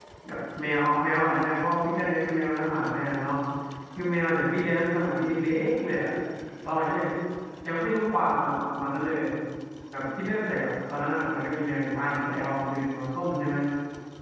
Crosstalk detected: No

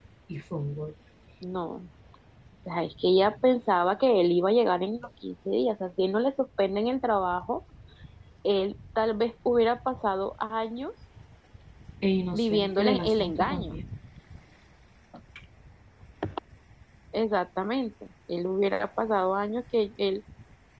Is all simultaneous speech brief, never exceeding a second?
No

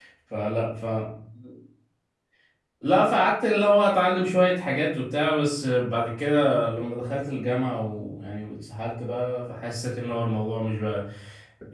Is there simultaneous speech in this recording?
No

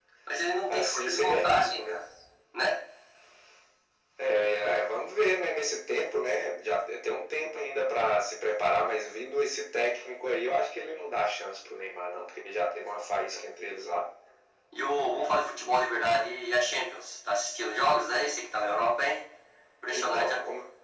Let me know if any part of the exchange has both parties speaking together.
Yes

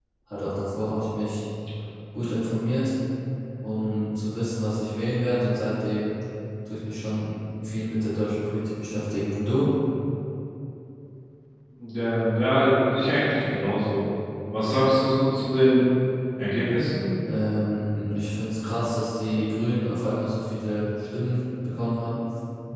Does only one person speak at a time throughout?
Yes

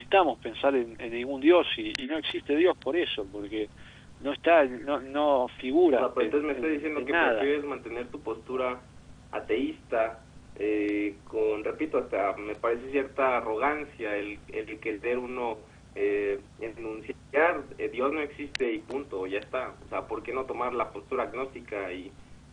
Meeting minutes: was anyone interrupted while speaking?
Yes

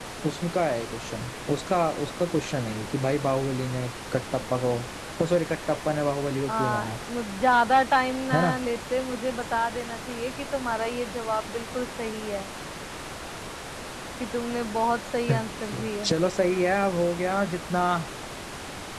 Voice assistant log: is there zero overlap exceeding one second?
Yes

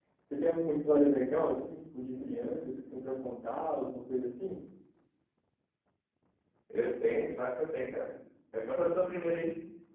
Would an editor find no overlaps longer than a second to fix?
Yes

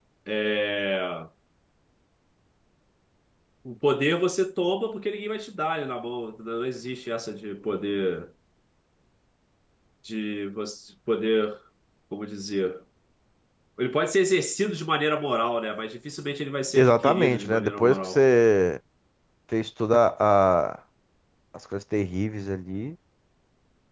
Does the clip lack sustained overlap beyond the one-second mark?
No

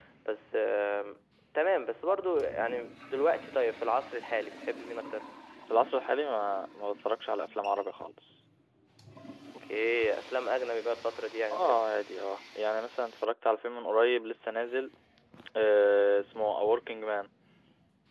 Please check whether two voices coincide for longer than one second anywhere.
No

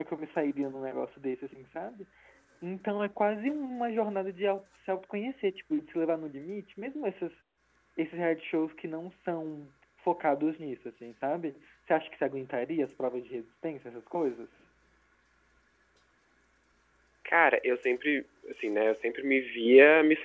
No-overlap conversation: Yes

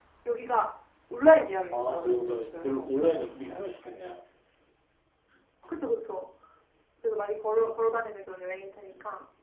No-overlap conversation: No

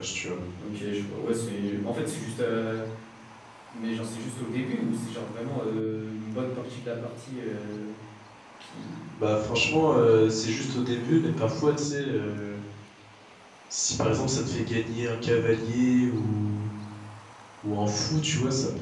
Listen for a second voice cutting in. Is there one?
No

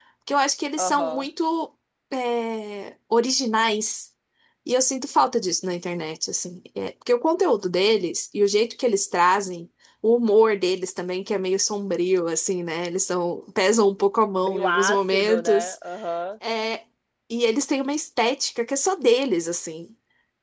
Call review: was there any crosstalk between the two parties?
Yes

